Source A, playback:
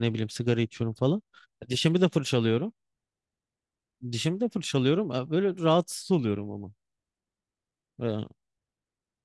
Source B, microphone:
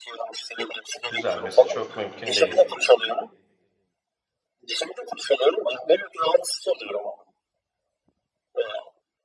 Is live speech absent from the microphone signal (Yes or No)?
No